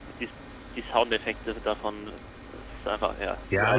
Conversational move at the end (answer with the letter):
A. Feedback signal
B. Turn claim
B